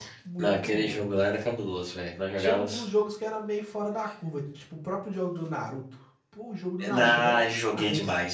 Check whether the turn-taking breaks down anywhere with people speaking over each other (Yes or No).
Yes